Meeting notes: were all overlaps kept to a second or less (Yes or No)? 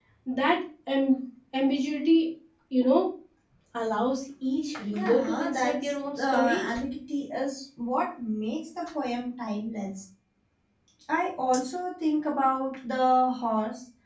No